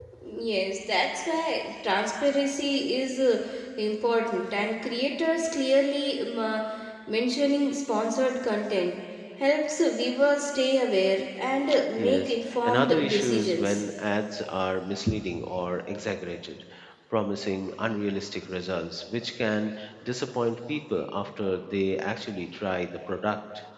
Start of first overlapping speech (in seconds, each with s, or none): 12.0 s